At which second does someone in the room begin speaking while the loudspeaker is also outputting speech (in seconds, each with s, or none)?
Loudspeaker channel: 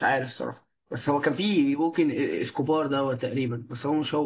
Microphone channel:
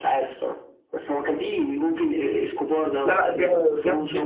3.0 s